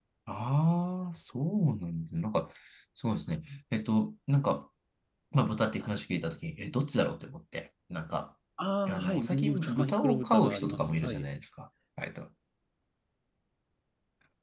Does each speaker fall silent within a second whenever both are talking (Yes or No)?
No